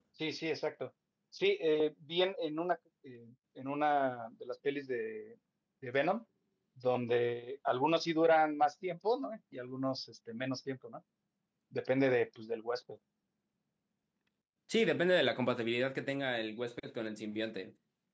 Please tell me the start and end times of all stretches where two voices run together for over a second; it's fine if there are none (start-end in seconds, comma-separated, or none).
none